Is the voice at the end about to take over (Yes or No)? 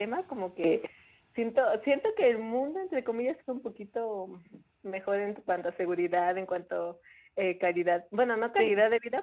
No